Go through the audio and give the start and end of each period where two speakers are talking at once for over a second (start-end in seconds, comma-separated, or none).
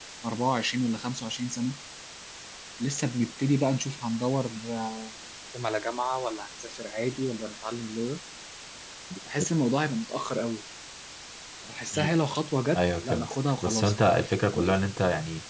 12.8-14.1